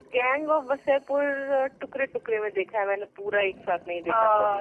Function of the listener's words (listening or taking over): taking over